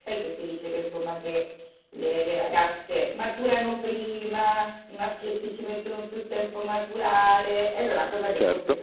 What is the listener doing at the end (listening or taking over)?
listening